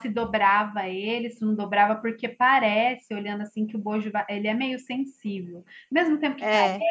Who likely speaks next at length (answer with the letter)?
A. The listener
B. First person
B